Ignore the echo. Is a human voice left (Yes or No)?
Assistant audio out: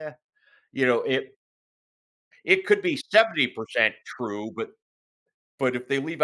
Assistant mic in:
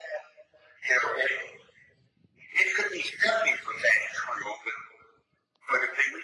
No